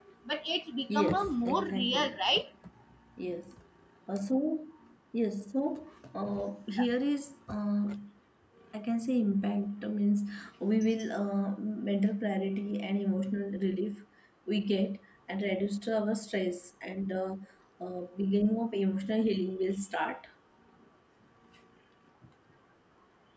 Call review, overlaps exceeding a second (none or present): present